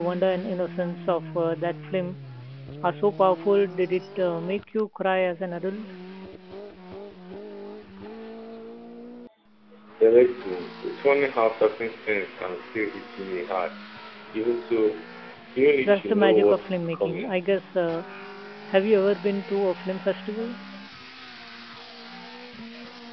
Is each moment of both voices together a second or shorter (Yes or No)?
No